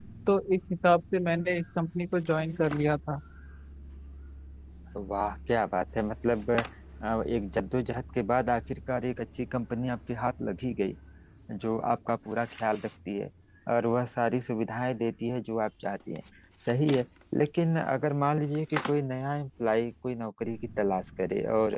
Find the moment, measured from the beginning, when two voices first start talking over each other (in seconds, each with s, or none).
none